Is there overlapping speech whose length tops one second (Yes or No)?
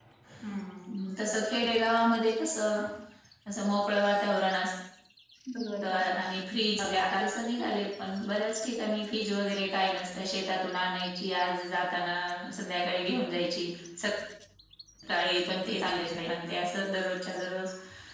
No